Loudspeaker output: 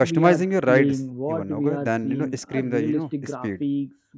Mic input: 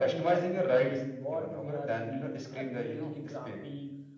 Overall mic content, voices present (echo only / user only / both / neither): echo only